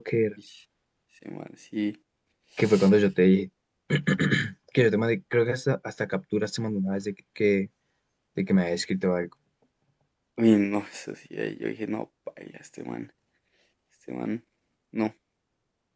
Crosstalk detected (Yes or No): No